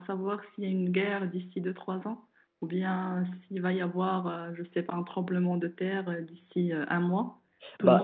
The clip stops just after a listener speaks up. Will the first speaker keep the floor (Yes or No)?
No